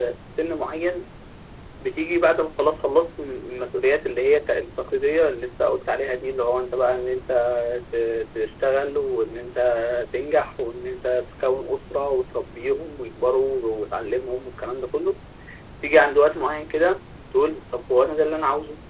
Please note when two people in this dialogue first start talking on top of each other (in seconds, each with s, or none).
none